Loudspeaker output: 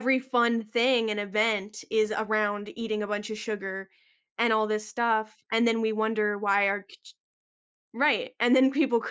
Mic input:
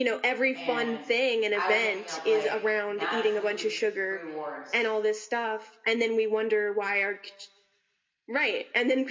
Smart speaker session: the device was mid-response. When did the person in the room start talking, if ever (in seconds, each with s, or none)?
0.5 s